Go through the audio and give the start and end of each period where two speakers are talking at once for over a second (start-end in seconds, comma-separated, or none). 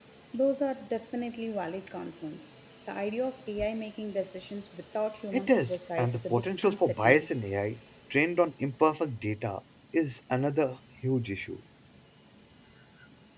5.3-7.3